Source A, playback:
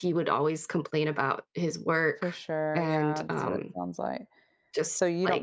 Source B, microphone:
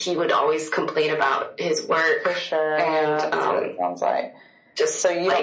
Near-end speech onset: none

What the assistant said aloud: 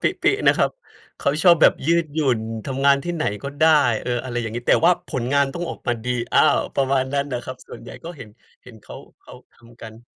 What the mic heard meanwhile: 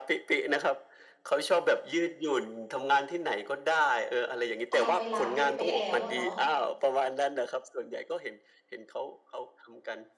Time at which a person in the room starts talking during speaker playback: 4.7 s

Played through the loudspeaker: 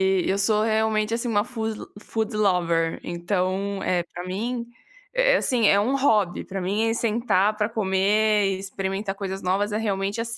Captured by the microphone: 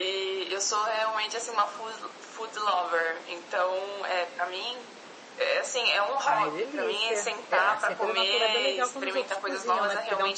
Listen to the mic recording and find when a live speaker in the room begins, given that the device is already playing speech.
6.2 s

